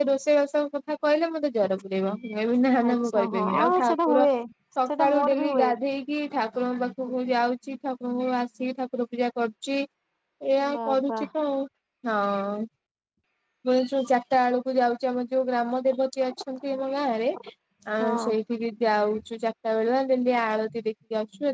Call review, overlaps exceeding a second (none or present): present